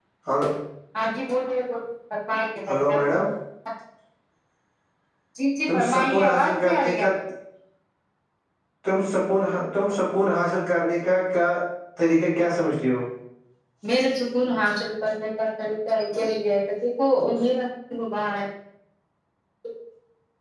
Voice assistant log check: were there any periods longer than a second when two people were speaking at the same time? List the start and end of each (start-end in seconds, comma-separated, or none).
5.7-7.1